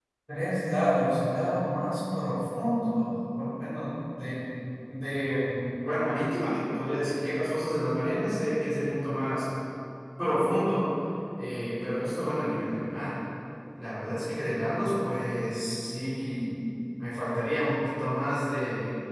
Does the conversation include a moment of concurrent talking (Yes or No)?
No